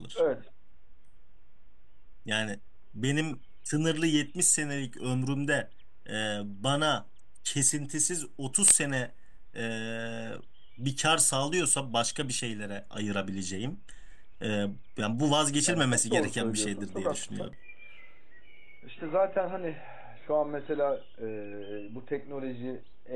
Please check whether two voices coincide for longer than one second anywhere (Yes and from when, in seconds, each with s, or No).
Yes, from 15.7 s